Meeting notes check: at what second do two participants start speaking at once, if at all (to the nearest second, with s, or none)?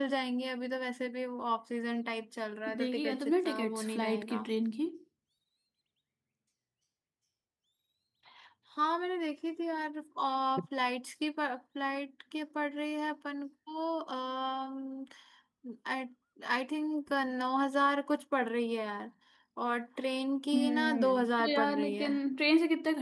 3 s